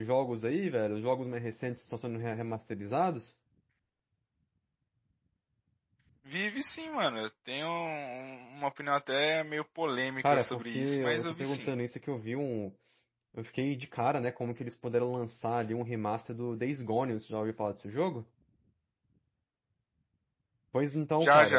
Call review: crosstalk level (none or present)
present